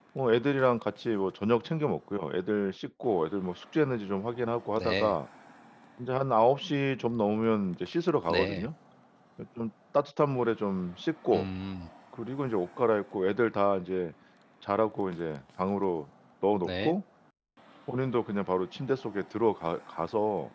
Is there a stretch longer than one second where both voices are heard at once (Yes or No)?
No